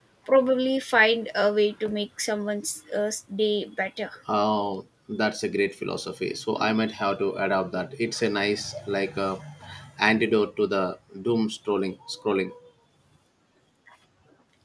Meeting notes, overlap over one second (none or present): none